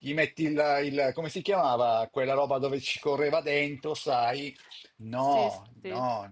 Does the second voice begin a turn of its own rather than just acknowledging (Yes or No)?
No